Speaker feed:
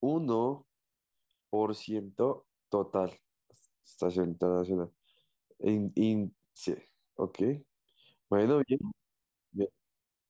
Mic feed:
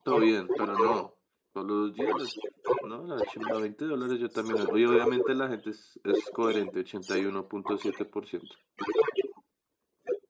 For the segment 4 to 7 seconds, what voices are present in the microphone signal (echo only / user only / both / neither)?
both